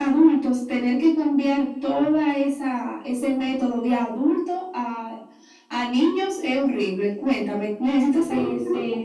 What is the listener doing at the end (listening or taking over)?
taking over